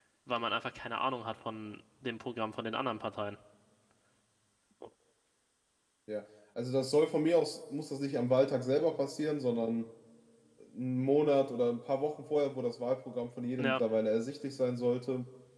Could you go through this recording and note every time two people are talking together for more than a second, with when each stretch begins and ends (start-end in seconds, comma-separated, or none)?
none